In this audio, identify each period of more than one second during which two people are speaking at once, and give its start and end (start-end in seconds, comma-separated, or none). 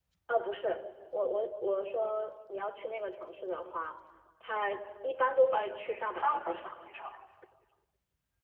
5.3-6.7